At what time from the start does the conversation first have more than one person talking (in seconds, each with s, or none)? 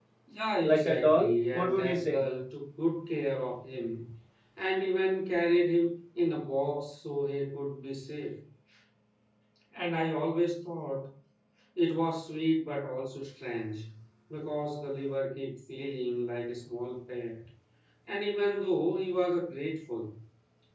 0.6 s